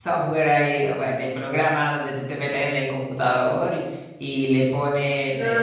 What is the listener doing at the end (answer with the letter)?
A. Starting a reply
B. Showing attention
A